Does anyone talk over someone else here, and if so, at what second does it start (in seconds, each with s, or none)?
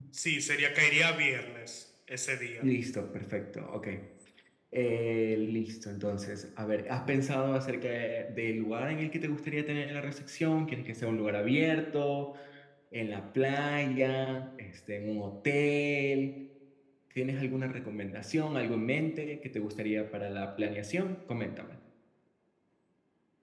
none